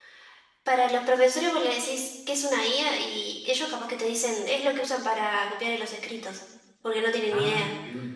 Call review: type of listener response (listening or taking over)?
taking over